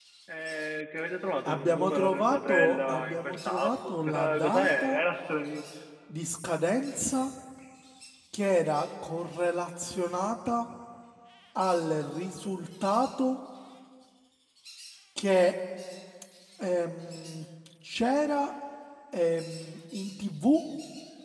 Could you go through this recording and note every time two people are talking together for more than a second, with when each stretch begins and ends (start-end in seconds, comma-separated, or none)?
1.4-5.0